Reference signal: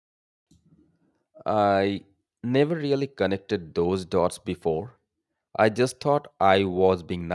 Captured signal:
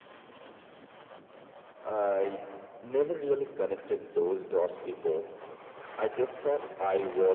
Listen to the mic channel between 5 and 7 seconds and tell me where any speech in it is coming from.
echo only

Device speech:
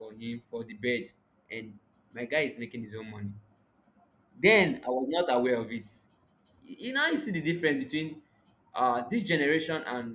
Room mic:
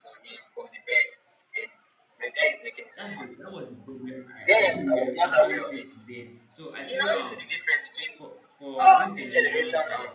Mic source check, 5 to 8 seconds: both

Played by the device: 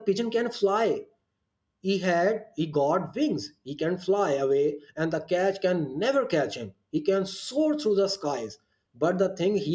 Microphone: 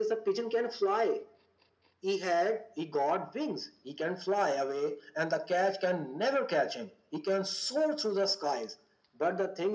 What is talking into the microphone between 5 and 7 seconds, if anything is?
echo only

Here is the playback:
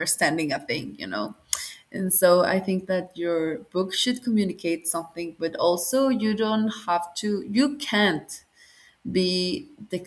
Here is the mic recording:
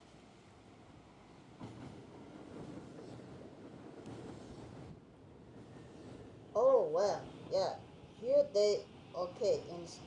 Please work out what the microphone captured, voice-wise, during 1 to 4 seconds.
neither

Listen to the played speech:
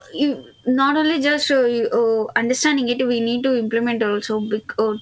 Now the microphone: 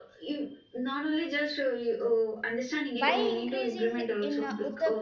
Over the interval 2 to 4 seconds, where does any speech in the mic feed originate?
both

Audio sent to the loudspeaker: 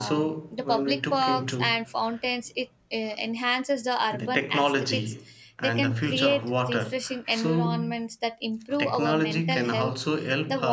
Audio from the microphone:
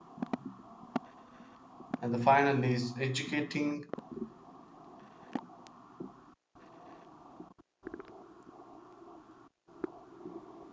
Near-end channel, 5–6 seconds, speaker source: neither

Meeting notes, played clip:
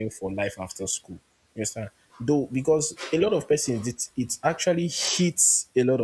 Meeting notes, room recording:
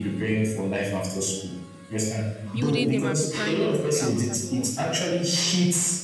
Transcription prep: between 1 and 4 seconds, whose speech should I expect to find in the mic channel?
both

